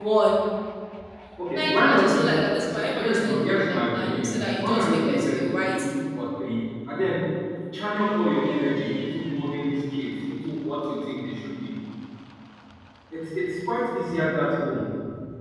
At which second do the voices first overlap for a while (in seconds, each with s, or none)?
1.5 s